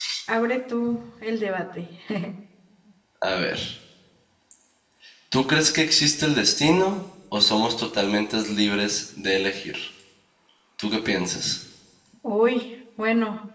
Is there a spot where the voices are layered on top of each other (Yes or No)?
No